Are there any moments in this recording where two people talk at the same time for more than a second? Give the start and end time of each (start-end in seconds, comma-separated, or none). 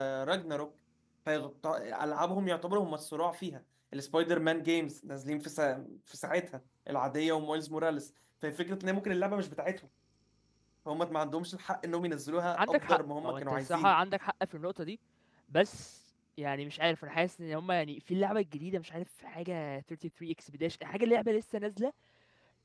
12.6-13.9